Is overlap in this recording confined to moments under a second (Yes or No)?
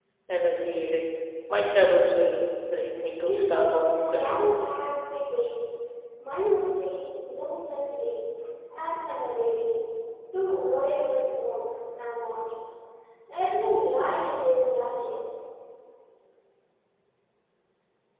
No